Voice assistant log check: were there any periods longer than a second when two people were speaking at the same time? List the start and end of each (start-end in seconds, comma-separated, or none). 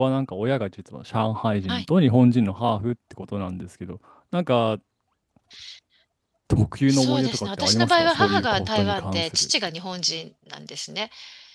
6.9-9.5